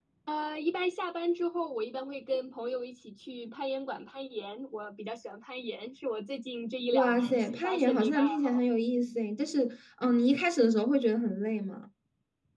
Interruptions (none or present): present